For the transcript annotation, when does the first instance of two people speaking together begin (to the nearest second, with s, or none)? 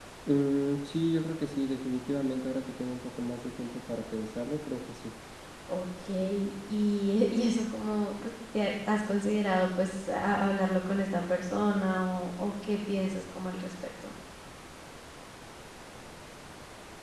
none